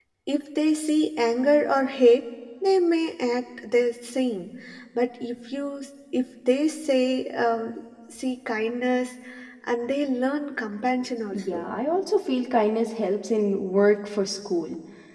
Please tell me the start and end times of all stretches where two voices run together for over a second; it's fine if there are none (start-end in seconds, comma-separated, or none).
none